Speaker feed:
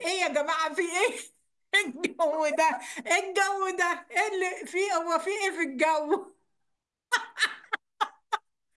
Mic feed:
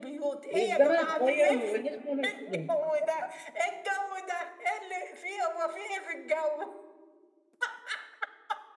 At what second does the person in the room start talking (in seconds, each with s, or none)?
0.5 s